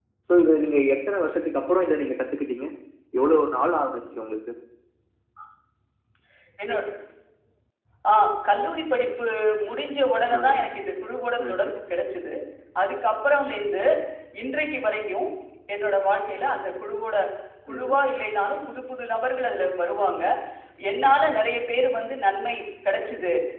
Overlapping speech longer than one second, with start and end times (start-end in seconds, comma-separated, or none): none